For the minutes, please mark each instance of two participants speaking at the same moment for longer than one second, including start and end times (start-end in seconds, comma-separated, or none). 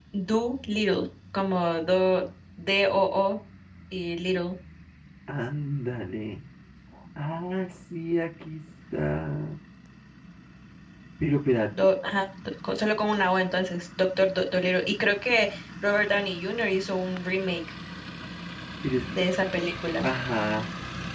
none